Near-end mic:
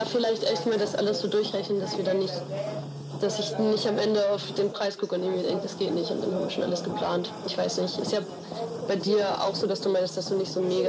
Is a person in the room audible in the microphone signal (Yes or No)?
Yes